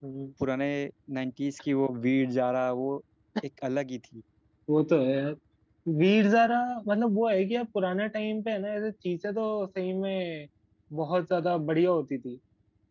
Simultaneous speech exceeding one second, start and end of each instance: none

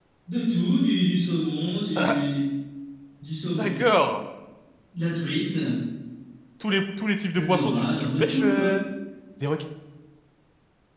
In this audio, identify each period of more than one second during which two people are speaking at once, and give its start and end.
7.3-8.8

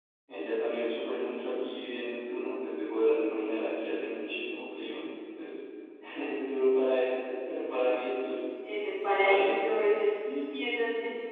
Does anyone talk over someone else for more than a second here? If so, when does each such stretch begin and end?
none

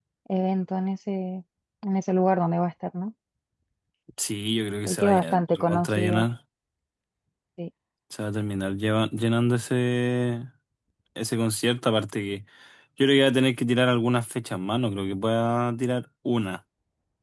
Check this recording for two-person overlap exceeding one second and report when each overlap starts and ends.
4.9-6.2

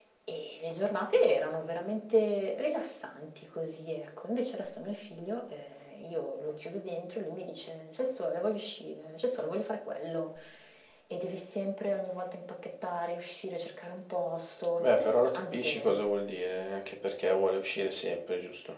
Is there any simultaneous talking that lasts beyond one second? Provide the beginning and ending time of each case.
14.8-16.0

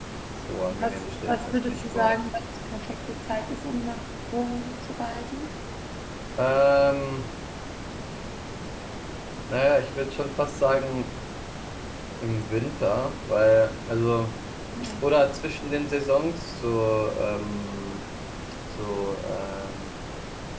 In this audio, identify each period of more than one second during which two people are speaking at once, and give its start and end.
0.8-2.2

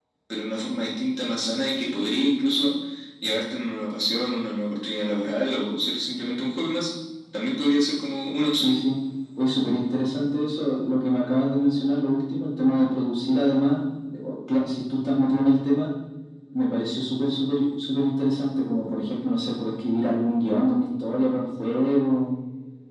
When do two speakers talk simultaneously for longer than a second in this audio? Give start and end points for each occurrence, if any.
none

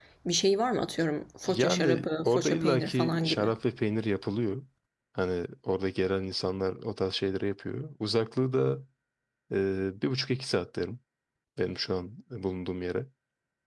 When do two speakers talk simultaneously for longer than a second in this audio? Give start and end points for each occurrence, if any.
1.4-3.5

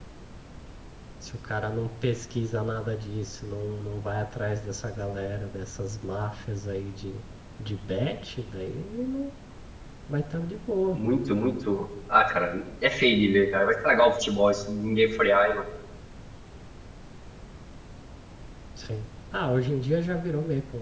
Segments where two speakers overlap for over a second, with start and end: none

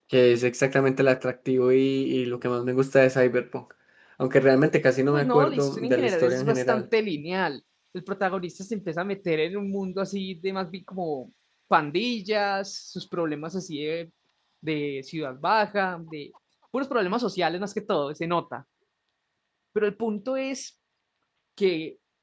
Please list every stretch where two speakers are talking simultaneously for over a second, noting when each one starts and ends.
5.1-6.8

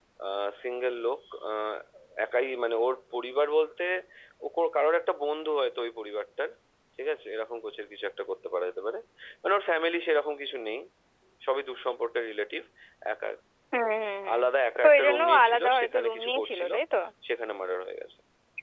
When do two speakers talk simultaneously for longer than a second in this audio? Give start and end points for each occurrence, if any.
14.8-16.7

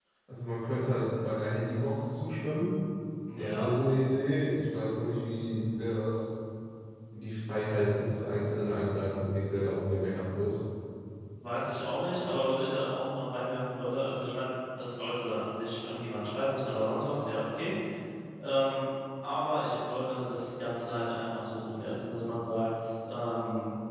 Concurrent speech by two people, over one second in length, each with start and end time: none

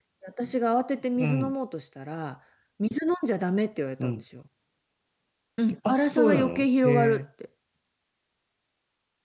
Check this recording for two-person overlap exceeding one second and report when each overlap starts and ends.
5.9-7.2

